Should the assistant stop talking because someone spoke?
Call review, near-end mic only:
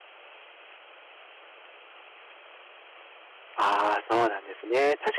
Yes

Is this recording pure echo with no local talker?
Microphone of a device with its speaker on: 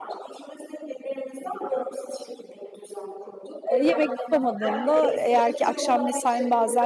No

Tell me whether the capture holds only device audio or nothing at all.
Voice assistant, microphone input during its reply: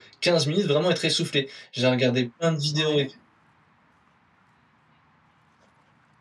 No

